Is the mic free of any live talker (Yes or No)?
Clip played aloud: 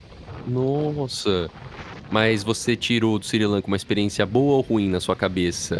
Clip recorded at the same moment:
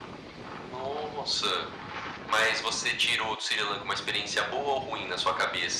Yes